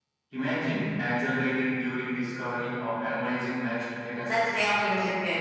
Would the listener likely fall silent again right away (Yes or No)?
No